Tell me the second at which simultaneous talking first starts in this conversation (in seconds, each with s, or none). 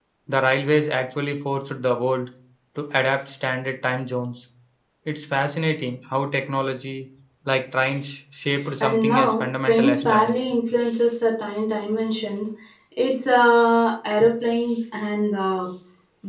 8.8 s